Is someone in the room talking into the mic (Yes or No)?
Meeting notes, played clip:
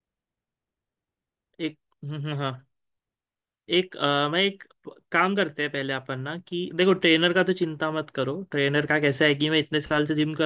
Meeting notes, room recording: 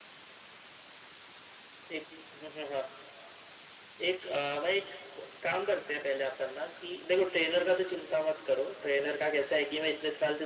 No